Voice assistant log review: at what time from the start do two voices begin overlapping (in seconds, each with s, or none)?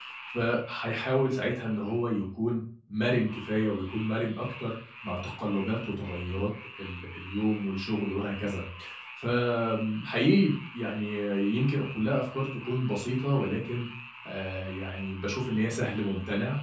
none